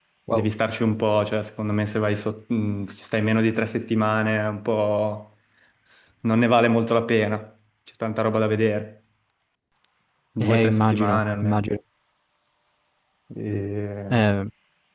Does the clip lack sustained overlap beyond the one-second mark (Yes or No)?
No